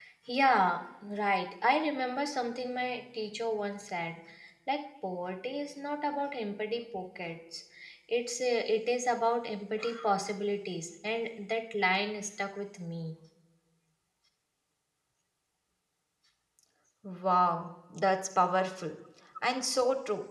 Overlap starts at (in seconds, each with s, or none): none